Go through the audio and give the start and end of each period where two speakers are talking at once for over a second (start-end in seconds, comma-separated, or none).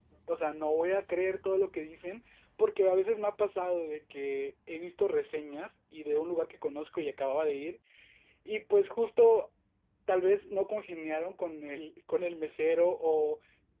none